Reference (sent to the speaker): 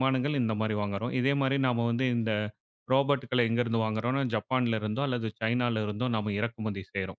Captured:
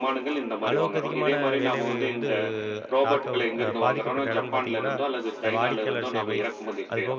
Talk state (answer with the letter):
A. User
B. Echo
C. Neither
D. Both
D